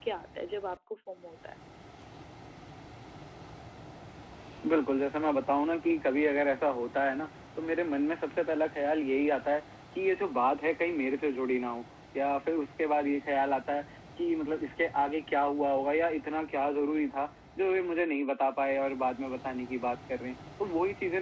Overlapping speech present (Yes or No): No